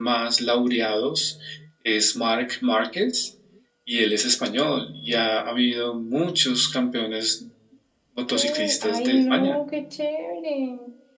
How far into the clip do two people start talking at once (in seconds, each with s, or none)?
8.3 s